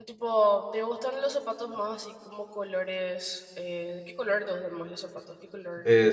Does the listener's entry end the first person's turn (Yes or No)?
Yes